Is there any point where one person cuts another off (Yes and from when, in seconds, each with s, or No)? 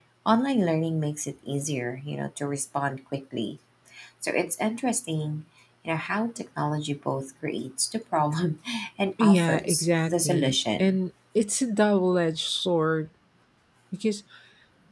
Yes, from 9.2 s